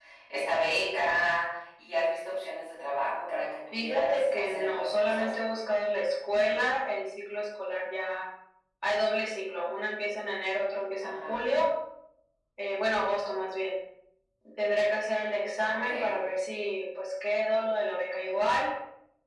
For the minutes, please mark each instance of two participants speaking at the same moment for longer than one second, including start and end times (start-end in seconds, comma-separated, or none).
3.7-5.3